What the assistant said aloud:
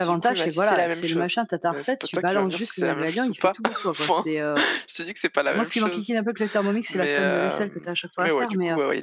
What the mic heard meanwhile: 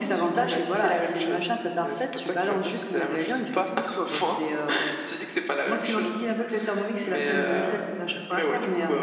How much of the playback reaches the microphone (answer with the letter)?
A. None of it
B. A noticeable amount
B